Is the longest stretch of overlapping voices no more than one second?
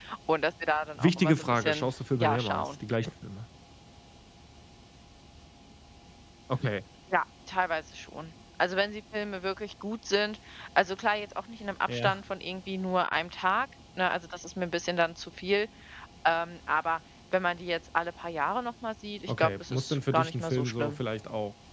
No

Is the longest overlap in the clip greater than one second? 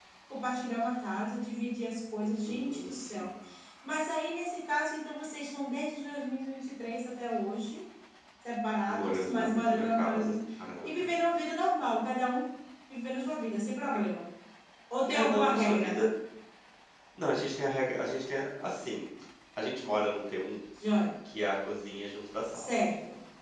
Yes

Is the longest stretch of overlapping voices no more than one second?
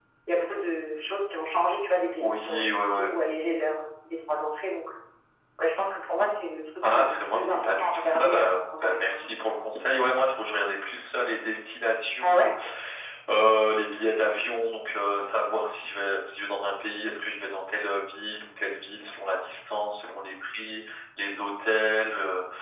No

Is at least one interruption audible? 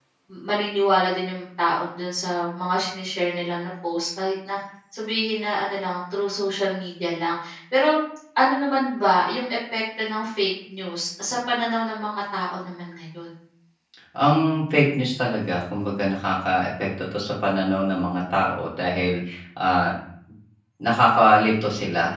No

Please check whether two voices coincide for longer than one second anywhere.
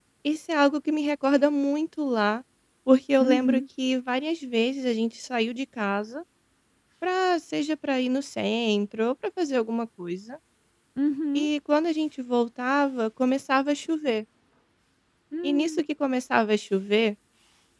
No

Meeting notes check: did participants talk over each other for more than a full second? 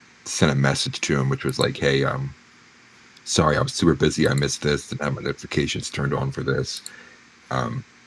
No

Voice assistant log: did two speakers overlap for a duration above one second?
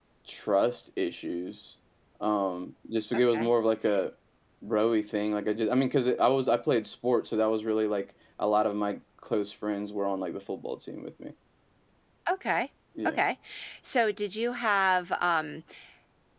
No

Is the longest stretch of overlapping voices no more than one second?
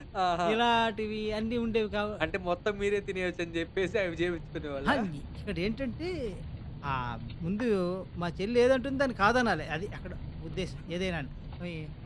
Yes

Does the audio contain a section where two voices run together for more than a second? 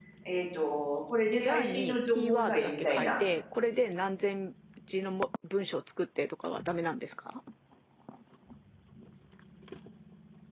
Yes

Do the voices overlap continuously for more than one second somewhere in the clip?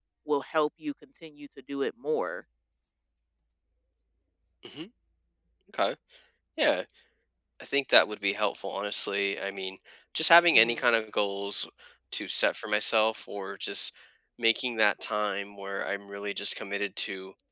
No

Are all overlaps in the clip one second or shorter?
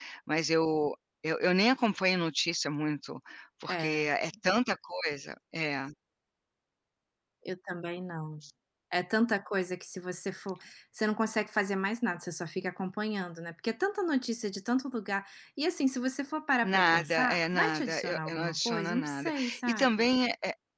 No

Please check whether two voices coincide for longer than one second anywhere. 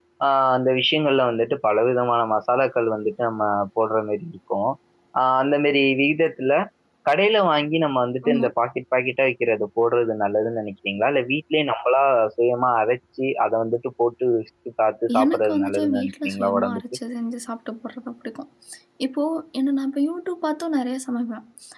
Yes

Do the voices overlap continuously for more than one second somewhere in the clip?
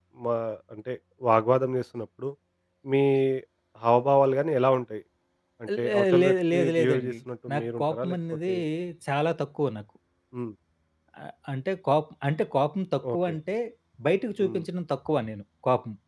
Yes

